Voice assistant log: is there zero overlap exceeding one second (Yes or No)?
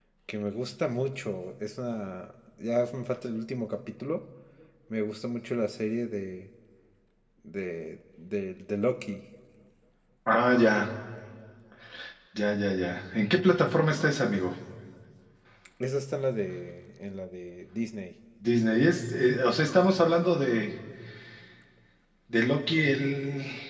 Yes